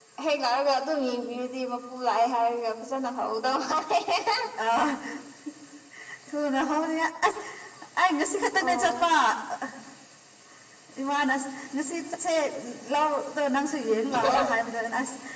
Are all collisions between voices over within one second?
Yes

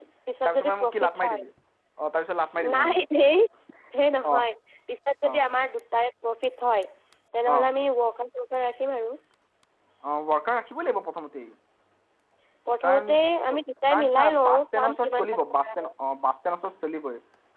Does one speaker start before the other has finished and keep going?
Yes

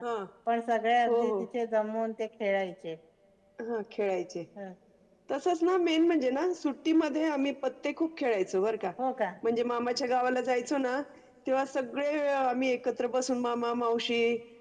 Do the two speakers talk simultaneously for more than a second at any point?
No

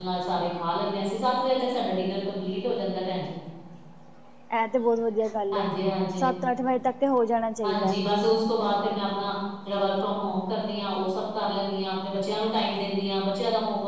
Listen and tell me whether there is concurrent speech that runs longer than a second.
No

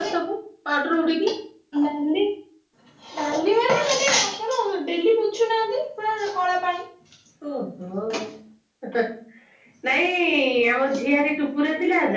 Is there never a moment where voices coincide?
Yes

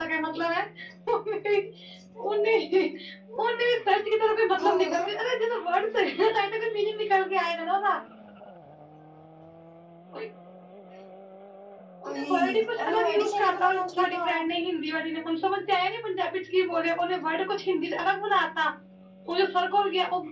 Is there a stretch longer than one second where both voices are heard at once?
Yes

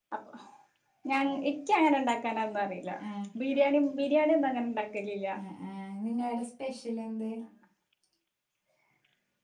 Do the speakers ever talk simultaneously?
No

